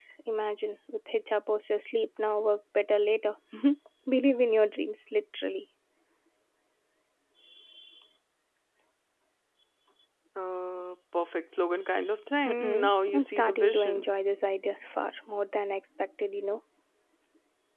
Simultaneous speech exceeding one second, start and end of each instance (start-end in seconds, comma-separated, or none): 12.4-14.0